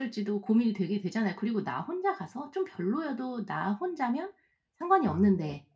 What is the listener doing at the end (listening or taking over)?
listening